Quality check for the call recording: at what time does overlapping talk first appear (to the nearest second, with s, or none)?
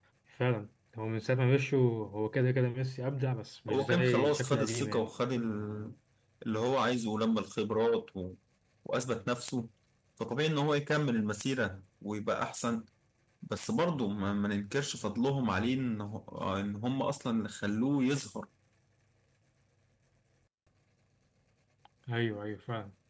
4 s